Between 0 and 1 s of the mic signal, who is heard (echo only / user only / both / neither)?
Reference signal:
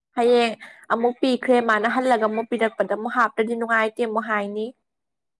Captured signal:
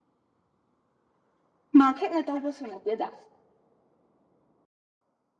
neither